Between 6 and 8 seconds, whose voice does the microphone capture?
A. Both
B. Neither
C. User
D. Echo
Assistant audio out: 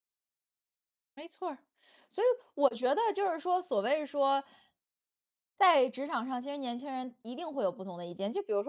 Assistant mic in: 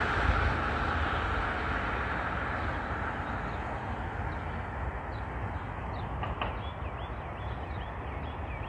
B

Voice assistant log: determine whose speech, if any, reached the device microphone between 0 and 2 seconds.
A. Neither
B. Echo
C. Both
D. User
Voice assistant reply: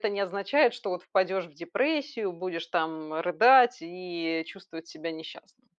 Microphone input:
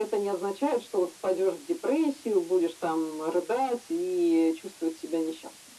B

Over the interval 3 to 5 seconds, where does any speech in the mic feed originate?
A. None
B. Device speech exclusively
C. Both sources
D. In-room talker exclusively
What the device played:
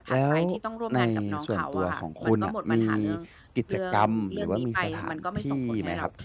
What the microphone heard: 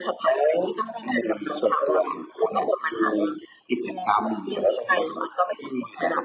B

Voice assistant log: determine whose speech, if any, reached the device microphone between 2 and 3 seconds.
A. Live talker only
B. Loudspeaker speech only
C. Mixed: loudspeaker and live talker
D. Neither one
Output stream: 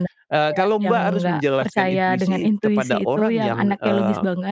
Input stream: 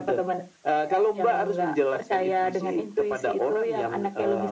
B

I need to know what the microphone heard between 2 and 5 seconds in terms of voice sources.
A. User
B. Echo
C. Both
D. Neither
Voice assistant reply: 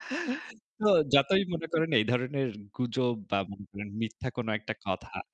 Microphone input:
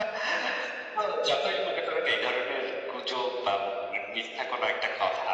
B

